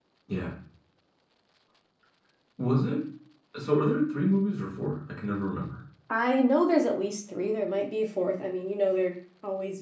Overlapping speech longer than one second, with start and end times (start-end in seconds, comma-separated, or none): none